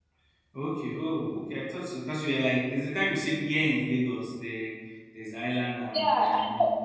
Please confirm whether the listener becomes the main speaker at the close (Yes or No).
Yes